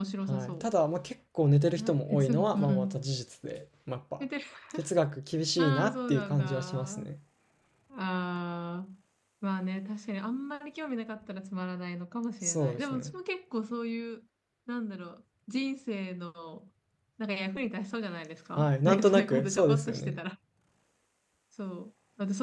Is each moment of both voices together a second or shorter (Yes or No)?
No